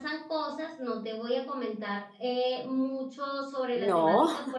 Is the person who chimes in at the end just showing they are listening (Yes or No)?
Yes